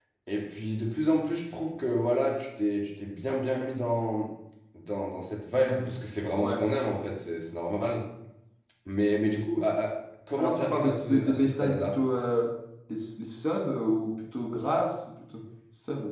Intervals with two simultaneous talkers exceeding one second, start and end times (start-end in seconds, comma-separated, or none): 10.4-12.0